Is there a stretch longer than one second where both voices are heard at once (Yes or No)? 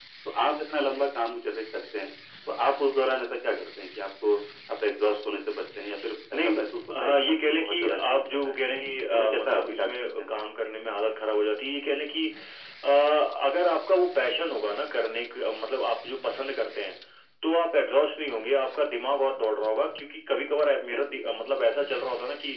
Yes